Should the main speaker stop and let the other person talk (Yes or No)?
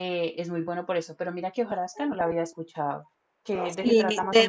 Yes